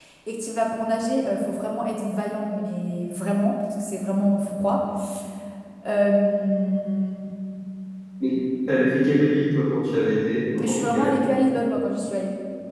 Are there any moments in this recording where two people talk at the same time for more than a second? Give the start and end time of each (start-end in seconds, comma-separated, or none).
none